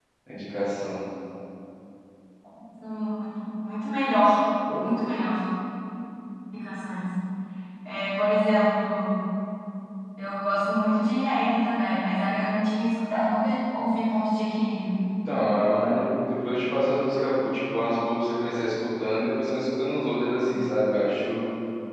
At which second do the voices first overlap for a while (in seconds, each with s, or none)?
none